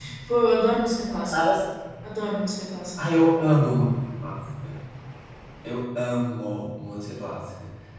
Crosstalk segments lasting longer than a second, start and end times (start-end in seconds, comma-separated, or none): none